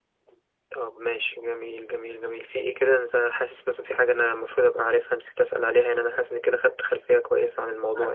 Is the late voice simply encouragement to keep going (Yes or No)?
No